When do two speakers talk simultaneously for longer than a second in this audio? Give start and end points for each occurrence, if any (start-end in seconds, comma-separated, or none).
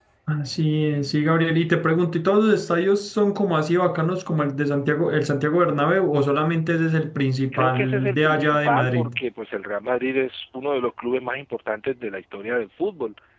7.5-9.1